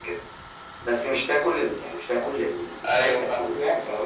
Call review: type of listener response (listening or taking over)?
listening